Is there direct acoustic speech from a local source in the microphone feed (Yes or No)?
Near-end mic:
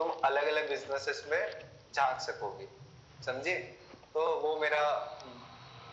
No